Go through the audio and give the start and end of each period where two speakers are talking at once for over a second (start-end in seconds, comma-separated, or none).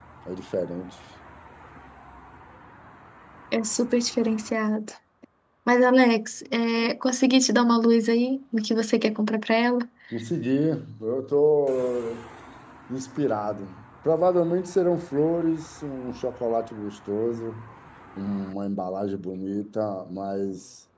none